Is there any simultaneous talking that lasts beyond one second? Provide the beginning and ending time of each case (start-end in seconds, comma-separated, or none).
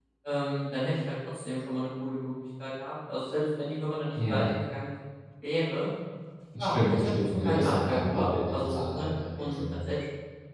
6.6-9.8